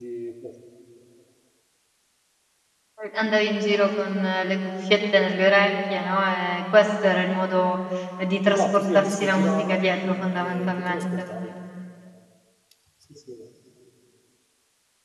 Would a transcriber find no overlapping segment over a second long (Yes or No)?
No